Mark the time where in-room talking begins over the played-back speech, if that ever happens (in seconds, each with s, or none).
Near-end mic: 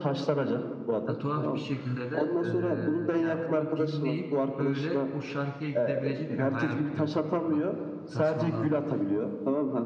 1.1 s